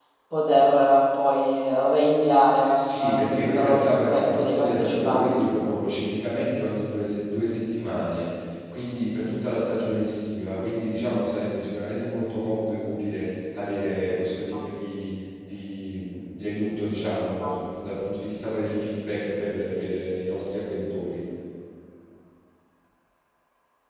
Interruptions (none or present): present